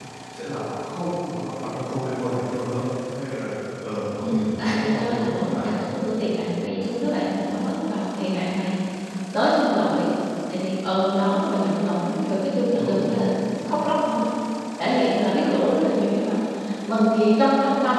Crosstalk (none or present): present